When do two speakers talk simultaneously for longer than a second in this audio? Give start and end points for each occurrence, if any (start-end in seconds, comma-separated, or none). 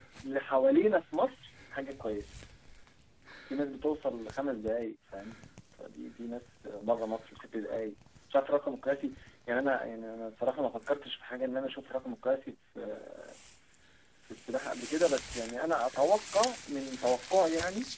none